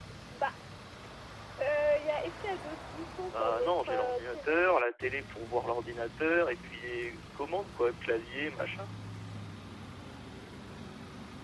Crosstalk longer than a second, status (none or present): present